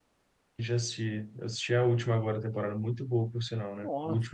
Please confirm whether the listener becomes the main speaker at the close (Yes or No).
Yes